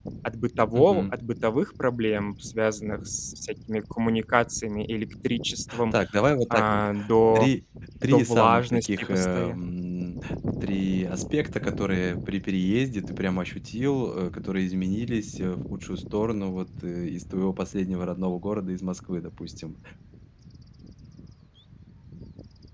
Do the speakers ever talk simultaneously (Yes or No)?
Yes